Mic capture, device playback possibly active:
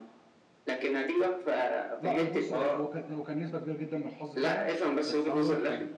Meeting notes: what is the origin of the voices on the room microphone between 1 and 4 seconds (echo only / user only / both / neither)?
both